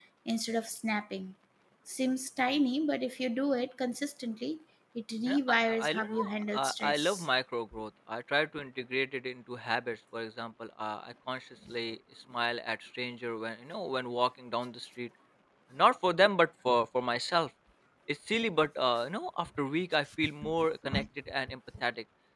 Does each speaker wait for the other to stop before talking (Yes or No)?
No